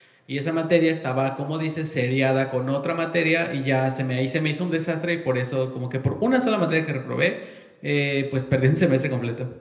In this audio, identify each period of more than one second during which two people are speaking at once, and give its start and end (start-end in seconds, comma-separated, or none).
none